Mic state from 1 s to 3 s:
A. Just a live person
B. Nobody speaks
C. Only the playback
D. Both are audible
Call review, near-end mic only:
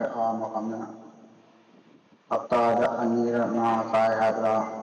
A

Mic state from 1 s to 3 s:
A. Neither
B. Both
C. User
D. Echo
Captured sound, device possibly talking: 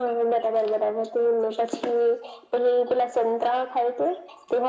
D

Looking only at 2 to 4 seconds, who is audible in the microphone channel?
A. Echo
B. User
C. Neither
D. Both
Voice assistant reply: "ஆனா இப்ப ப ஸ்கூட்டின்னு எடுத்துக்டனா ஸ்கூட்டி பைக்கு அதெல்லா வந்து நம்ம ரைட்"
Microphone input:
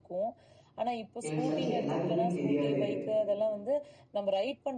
D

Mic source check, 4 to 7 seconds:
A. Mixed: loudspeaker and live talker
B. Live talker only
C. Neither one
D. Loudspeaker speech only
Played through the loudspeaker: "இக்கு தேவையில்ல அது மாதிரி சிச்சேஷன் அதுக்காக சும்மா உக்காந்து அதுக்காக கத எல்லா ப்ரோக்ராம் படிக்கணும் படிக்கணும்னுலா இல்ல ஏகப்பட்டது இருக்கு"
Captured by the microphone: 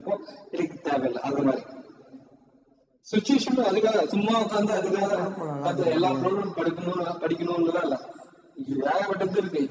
A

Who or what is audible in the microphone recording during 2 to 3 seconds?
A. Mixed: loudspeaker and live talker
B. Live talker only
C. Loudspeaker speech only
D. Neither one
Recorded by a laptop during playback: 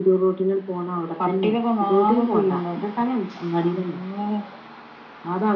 C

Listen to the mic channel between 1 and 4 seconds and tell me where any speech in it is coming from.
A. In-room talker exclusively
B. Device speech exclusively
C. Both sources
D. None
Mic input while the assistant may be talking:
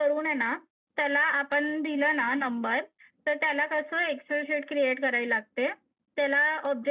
B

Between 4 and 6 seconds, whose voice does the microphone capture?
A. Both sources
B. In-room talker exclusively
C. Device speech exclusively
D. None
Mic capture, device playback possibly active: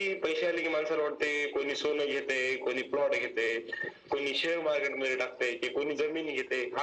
C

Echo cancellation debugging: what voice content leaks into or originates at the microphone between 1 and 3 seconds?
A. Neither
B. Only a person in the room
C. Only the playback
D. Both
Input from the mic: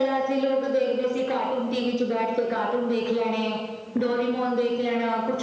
C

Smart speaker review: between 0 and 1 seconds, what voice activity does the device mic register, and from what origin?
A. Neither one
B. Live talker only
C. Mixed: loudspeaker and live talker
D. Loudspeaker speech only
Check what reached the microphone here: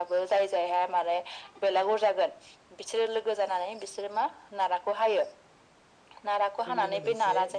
D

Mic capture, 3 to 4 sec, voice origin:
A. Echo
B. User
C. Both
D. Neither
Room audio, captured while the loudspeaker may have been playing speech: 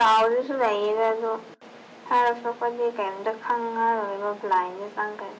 A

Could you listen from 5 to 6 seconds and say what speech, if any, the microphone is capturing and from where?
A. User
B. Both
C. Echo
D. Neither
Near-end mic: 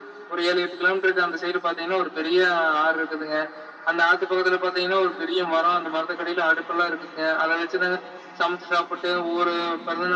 C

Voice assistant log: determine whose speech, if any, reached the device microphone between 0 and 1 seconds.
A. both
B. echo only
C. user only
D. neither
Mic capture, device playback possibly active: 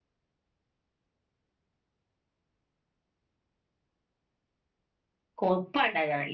D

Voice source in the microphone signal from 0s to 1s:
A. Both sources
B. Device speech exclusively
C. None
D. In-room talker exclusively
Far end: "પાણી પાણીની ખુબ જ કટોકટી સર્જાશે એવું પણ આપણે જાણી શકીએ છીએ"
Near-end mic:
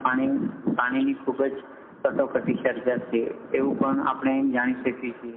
B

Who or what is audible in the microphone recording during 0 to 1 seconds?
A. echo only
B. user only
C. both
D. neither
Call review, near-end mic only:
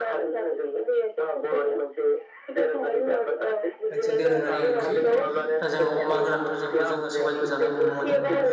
A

